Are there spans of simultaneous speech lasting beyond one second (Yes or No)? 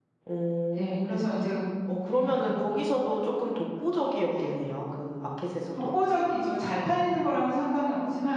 No